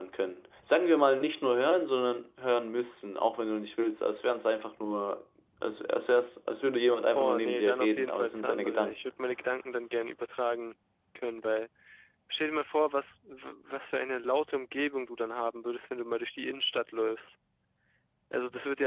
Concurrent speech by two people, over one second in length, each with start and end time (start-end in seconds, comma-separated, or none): 7.2-8.9